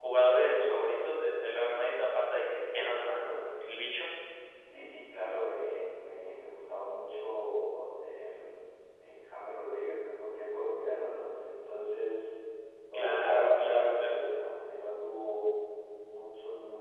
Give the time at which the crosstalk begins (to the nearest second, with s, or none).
13 s